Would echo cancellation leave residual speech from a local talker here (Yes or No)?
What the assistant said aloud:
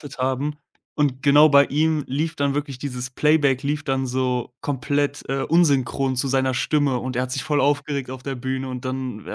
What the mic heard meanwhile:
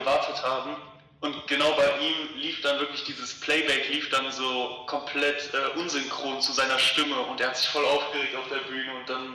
No